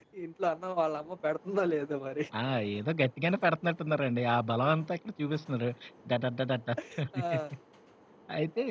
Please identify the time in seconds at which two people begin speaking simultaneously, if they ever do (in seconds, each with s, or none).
none